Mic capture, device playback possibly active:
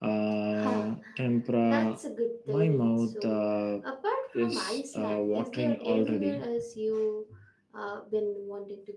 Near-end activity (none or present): present